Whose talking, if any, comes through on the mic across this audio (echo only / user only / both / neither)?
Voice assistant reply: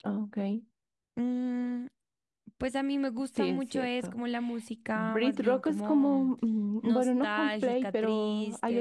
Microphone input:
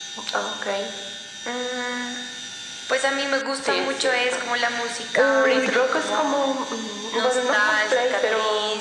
both